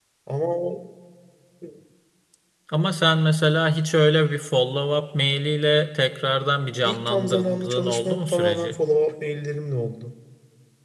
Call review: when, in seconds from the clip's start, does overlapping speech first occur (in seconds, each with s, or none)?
6.8 s